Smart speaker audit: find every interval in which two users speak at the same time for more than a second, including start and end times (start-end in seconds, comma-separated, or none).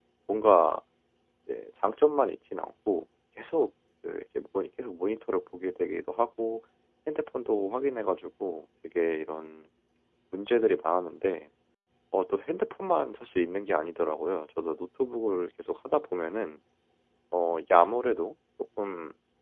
none